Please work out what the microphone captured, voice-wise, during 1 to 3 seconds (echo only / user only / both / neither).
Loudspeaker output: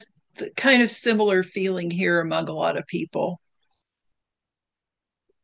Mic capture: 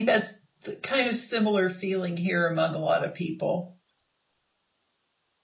echo only